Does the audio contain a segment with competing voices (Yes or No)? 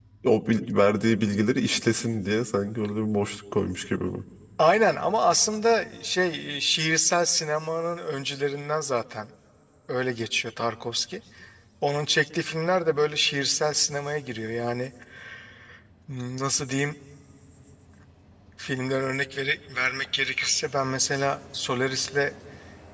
No